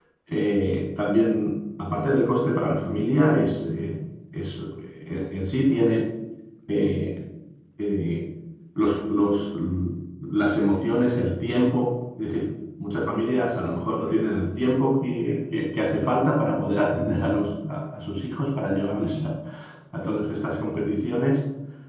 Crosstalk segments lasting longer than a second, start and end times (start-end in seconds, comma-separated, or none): none